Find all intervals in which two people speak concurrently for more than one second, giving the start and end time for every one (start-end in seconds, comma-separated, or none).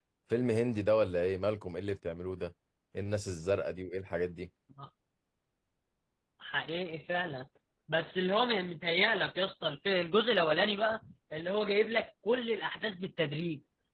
none